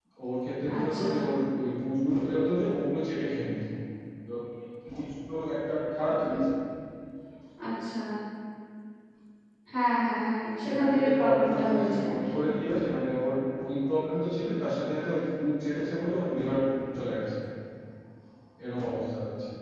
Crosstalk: present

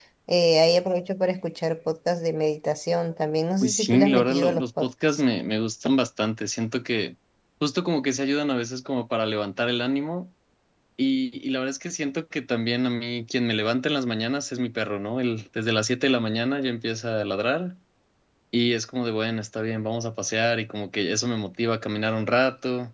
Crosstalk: present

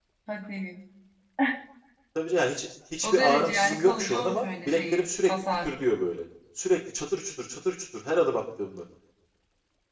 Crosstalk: present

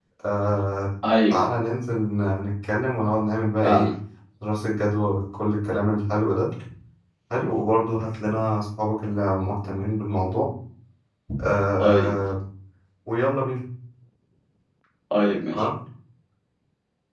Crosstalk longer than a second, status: none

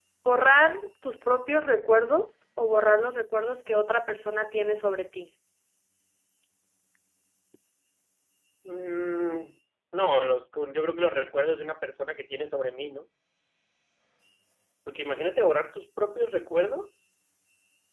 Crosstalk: none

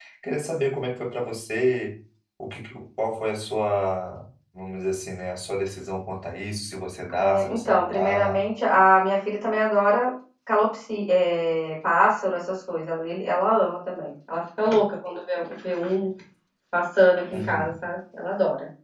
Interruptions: present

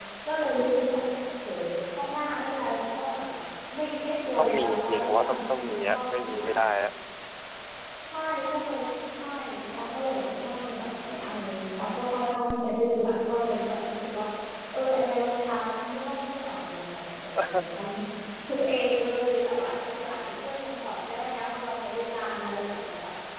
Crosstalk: present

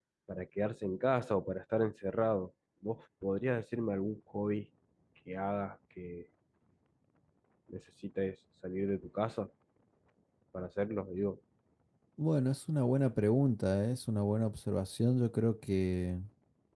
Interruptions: none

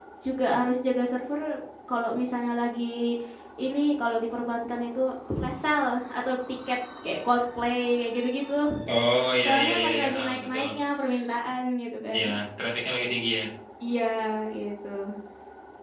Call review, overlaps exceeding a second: present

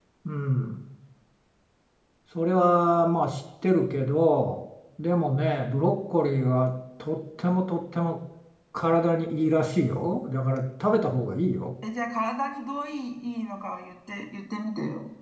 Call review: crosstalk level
none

